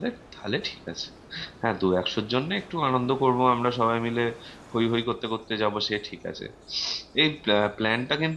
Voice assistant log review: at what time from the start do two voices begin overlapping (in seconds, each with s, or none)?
none